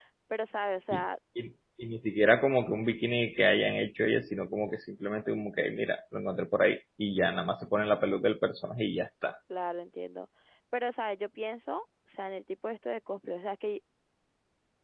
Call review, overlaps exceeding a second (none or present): none